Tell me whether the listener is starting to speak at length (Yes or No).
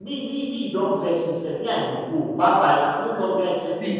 No